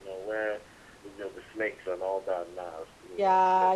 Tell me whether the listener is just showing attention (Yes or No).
No